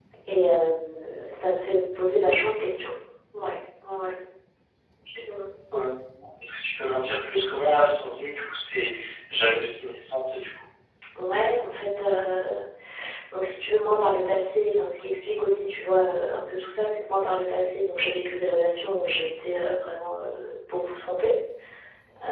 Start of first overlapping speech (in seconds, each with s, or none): none